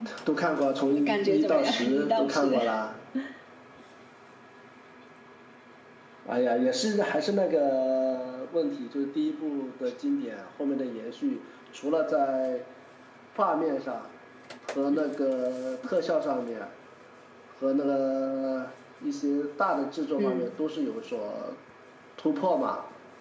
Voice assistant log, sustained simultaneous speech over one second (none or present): present